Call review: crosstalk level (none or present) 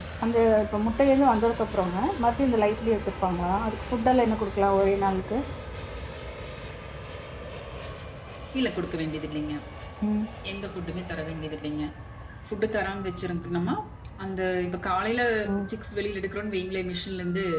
none